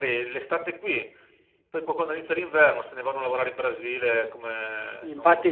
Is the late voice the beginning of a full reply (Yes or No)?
Yes